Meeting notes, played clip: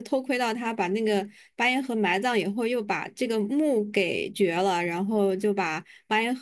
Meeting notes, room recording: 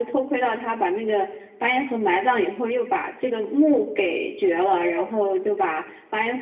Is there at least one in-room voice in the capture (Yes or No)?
Yes